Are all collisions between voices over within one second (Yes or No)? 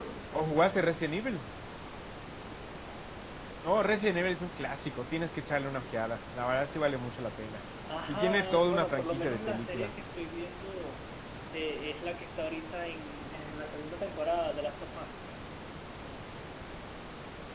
No